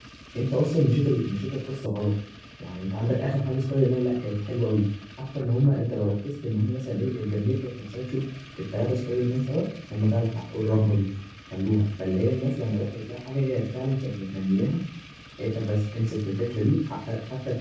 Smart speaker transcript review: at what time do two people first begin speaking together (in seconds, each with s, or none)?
none